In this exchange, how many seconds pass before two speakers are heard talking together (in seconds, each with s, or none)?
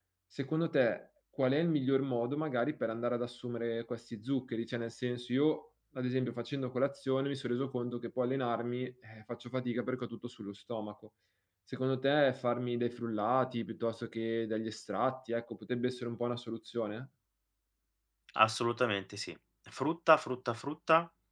none